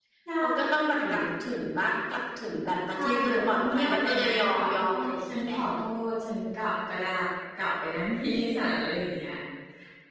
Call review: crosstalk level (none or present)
present